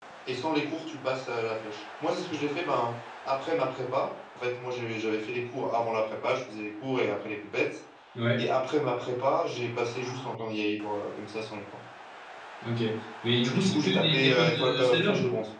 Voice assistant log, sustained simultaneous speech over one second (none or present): present